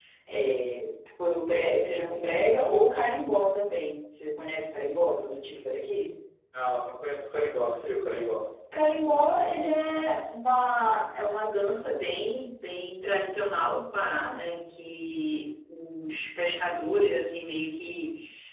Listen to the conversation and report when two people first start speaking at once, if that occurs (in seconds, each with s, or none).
none